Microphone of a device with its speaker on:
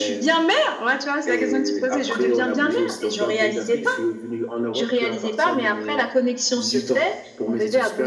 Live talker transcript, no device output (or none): none